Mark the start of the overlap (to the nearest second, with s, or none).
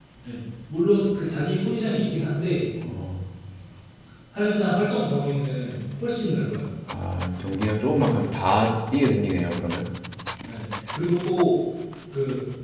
none